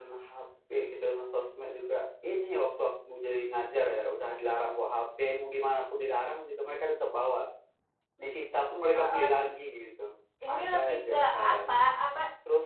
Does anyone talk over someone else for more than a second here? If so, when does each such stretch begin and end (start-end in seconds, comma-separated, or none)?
10.5-11.8